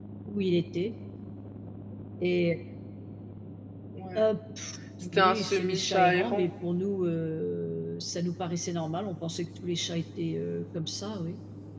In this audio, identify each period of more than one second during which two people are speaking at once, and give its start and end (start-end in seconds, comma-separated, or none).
5.1-6.5